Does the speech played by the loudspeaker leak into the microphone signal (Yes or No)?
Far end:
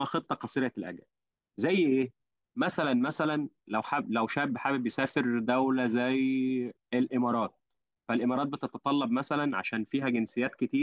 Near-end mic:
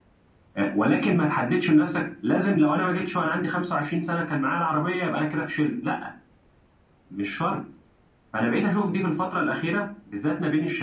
No